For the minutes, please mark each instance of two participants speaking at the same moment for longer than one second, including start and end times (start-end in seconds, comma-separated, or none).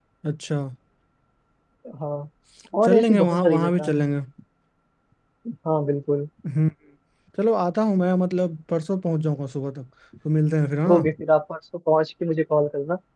2.8-4.0